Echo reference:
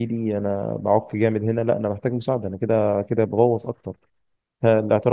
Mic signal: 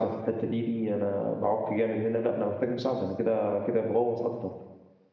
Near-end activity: none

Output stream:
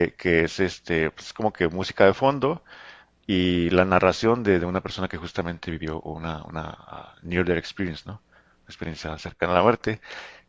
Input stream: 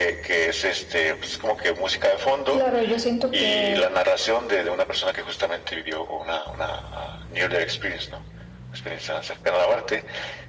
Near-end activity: present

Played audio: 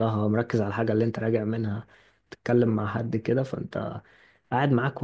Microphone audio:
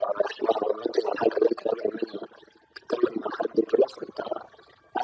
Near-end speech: none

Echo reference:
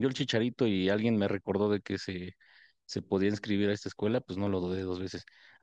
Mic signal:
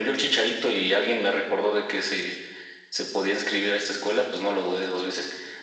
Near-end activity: none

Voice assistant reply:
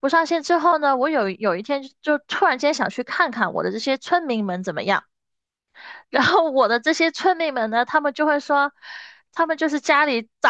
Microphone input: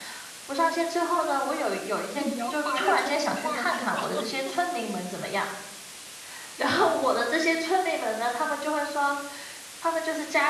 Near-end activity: present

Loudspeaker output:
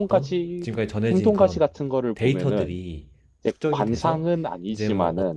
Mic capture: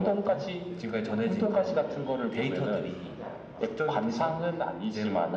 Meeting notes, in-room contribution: present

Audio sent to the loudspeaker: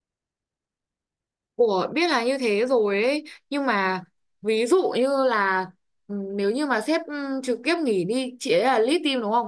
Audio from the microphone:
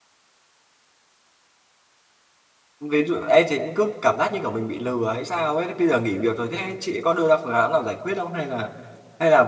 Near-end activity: present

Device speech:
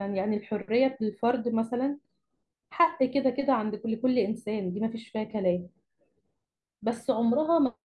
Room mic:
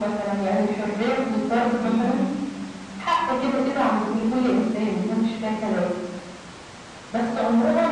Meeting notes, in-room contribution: present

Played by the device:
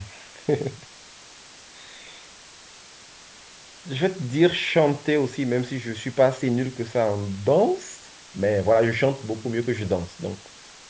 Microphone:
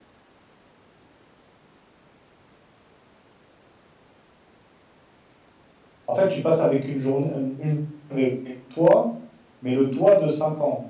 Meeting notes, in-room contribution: present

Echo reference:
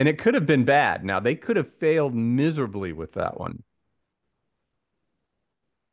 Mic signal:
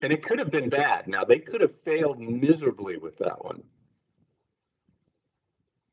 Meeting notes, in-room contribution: none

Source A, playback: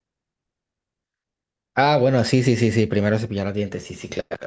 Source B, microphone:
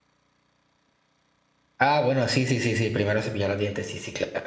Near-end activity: none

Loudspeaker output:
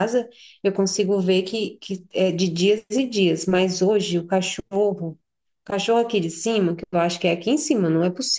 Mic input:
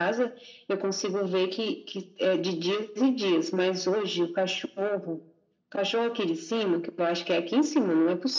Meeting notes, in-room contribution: none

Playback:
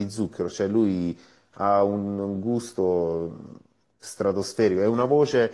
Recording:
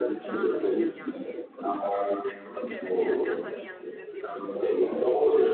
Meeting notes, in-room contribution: present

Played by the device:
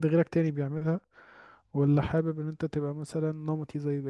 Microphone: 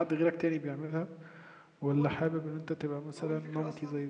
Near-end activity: present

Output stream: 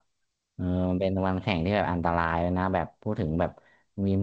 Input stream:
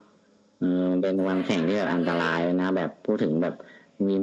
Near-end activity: present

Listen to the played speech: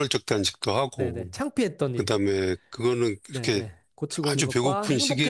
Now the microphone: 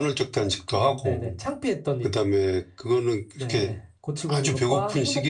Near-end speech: none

